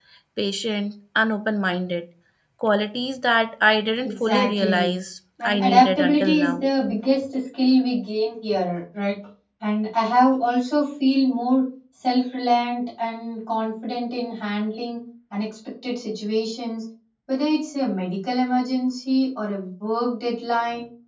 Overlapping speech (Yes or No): Yes